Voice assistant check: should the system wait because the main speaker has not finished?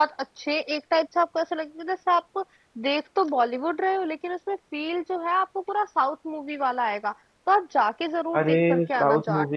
No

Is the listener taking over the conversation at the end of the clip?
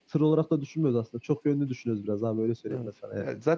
Yes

